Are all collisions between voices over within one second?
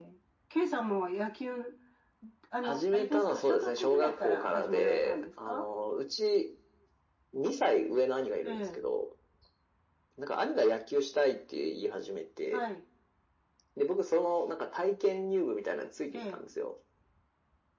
No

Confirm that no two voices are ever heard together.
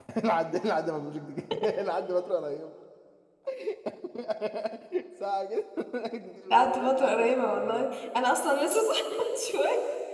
No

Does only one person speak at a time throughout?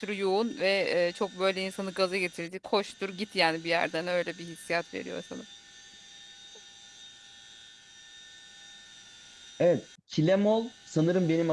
Yes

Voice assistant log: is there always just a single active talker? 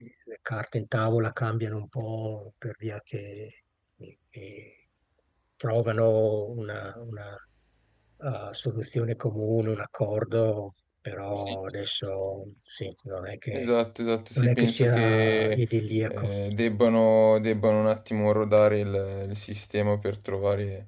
No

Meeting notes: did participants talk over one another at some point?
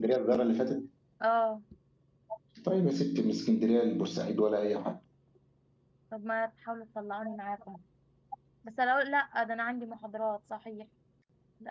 No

